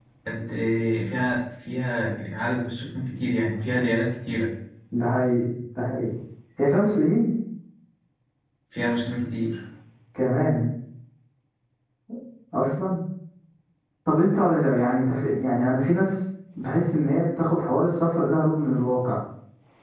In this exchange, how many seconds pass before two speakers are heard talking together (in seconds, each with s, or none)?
none